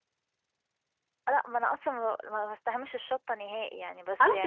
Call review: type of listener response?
taking over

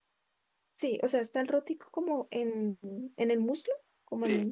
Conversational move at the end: taking over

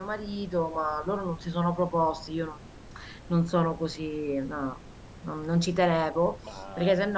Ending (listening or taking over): listening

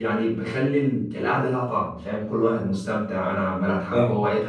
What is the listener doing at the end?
listening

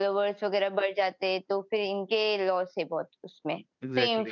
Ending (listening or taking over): listening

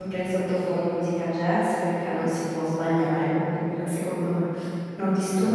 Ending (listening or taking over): listening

